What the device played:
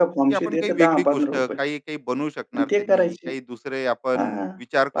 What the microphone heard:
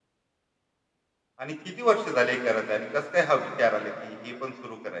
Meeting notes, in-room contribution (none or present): present